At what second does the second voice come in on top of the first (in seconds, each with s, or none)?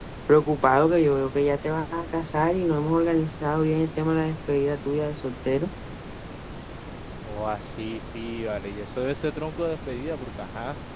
none